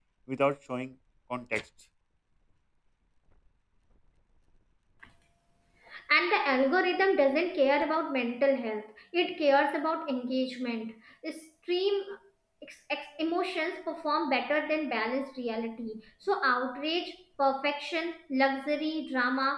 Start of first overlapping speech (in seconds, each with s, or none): none